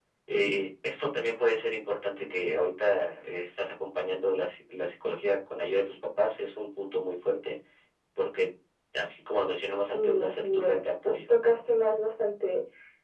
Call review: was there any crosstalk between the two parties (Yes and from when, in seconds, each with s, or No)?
Yes, from 9.8 s